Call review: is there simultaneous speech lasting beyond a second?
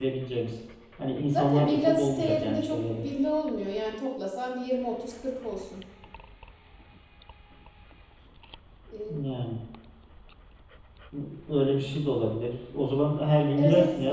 Yes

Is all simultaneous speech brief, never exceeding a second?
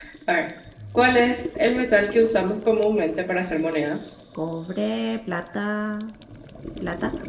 Yes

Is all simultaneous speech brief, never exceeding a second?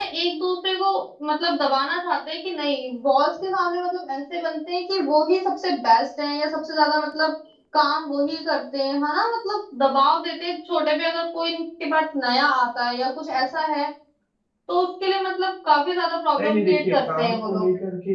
No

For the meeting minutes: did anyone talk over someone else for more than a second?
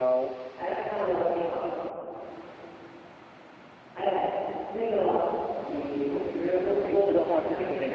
Yes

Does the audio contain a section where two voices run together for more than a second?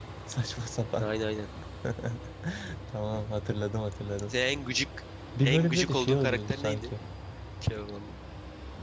Yes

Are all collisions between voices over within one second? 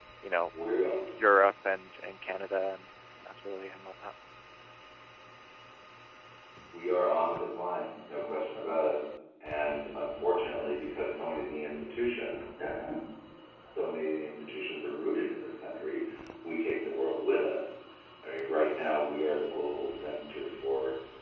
Yes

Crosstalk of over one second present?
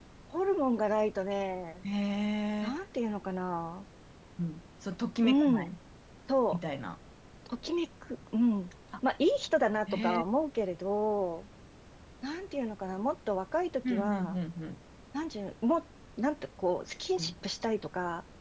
No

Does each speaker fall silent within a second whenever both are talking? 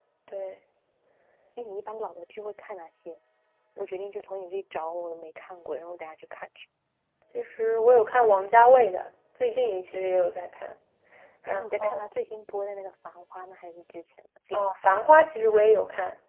Yes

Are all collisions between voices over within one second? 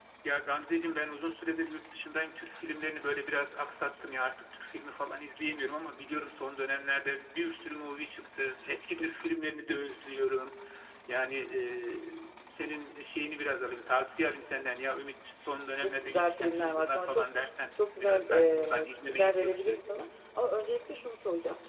No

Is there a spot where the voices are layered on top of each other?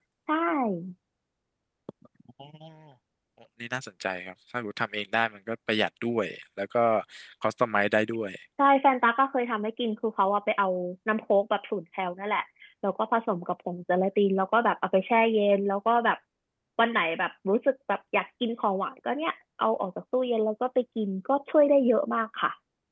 No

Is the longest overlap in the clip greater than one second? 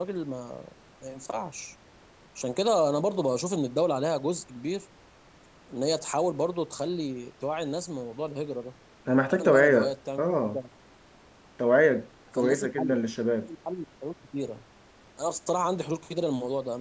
Yes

